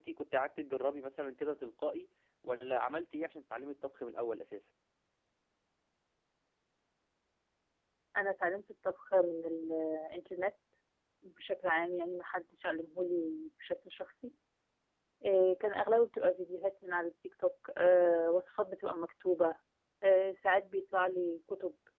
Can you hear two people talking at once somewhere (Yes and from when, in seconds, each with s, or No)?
No